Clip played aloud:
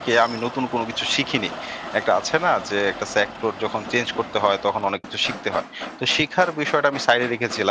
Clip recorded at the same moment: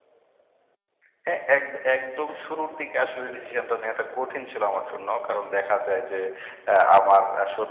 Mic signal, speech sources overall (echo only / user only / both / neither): user only